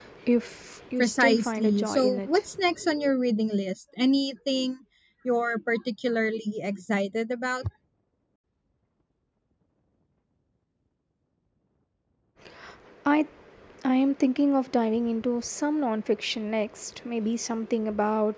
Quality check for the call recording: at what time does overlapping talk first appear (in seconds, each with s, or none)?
1.0 s